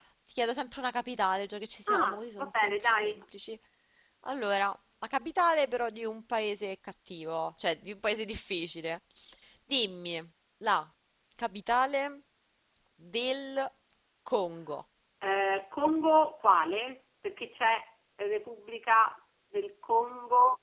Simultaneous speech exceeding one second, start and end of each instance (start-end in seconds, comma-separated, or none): 1.9-3.2